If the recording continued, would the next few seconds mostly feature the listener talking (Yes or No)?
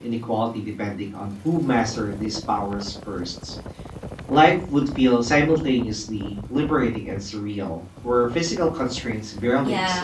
Yes